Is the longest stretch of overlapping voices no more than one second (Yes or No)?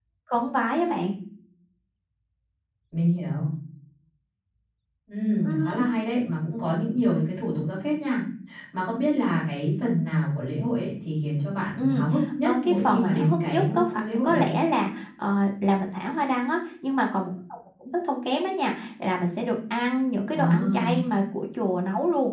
No